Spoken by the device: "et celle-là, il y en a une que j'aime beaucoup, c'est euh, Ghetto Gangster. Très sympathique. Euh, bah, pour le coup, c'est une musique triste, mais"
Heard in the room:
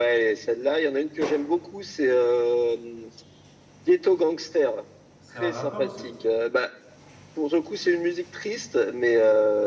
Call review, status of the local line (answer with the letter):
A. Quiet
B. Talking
B